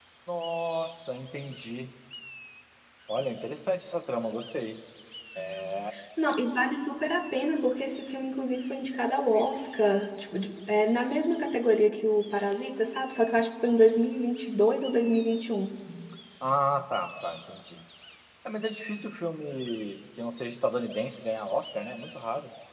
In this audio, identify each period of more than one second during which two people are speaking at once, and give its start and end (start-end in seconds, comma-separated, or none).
none